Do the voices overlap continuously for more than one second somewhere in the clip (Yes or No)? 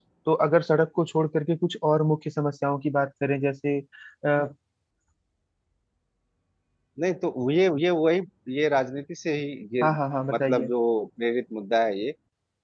No